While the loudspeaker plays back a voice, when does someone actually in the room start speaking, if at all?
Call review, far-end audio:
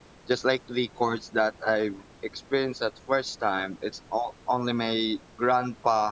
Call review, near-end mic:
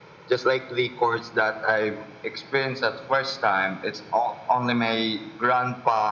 none

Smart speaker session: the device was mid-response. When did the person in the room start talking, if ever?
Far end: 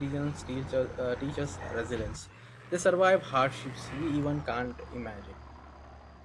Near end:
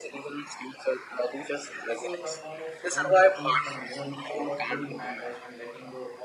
1.8 s

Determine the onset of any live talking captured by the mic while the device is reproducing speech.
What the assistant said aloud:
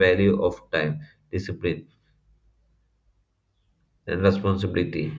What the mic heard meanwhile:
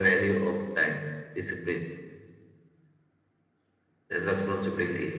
none

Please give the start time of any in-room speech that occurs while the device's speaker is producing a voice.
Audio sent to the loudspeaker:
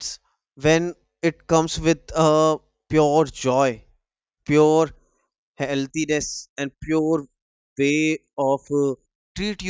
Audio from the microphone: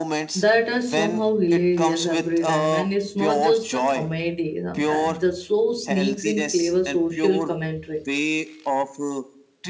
0.3 s

